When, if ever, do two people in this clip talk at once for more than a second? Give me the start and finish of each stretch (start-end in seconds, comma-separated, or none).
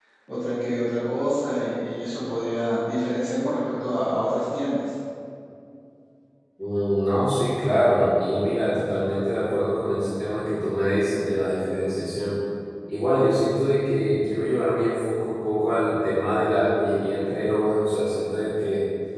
none